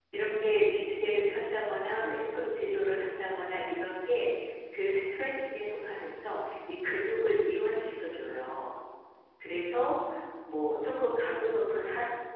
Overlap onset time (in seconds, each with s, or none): none